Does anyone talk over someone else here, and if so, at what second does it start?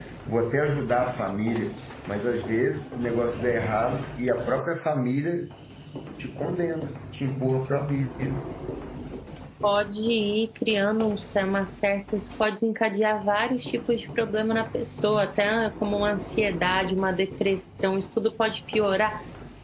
none

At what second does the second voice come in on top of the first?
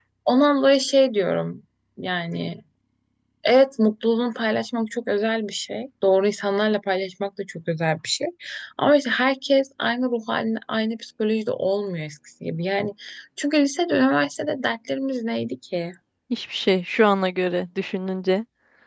none

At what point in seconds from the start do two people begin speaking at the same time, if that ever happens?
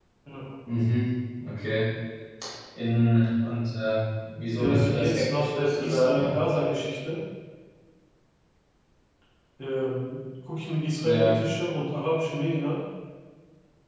4.6 s

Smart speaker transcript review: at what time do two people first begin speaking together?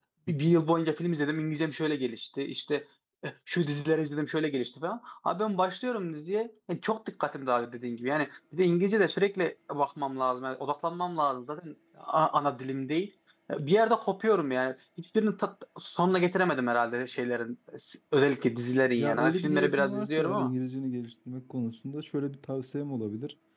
19.0 s

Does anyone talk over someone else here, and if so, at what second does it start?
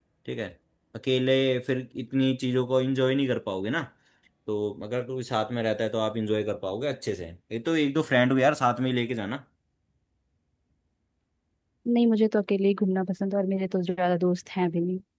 none

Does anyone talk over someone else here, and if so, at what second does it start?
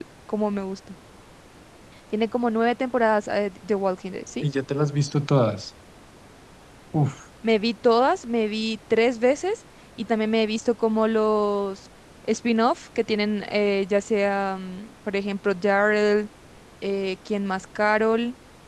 none

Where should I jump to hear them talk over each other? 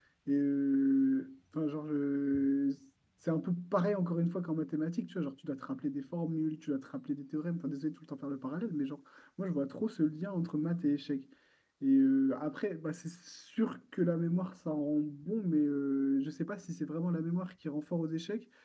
none

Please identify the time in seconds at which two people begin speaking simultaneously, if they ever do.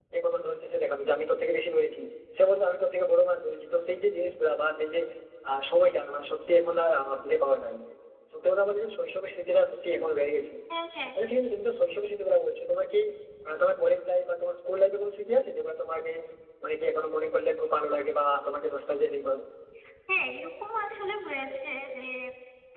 none

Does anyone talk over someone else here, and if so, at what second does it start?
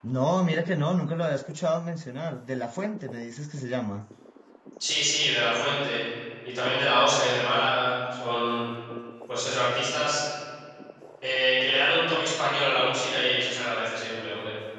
none

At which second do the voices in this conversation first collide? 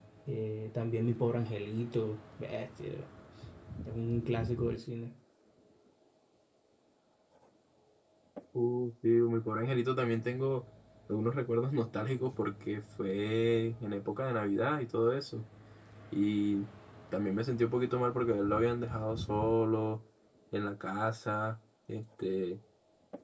none

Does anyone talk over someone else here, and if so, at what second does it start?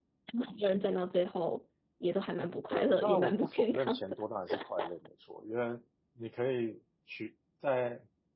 2.7 s

